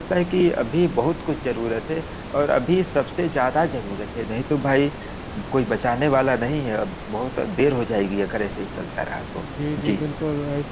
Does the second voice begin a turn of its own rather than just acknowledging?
Yes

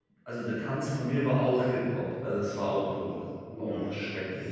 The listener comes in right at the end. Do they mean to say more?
Yes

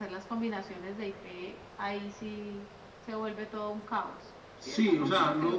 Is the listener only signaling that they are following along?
No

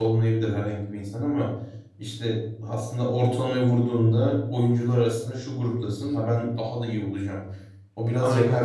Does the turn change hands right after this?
No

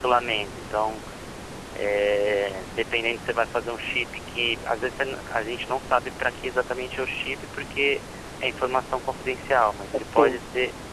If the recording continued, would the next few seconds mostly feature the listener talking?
No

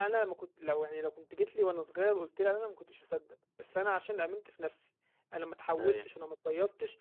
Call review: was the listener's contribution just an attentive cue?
Yes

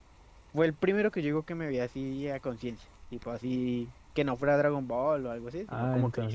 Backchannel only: No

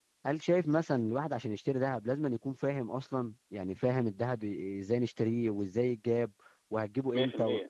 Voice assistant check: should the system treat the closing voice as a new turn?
No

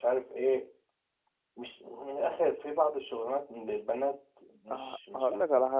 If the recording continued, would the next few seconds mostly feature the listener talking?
Yes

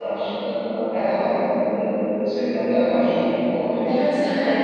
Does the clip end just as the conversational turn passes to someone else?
Yes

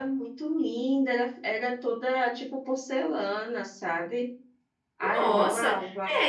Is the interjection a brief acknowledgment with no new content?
No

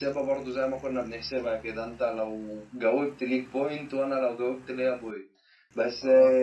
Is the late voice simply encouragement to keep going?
Yes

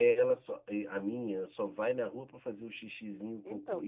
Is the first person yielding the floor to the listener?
No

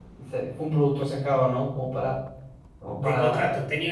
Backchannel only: No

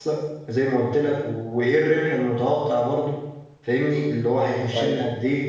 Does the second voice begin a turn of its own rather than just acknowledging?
No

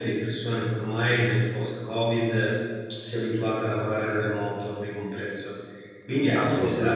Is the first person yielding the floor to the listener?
No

